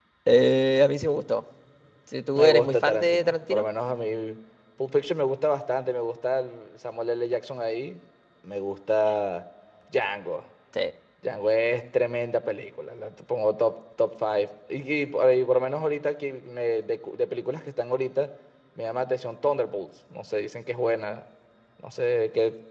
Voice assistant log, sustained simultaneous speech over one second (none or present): present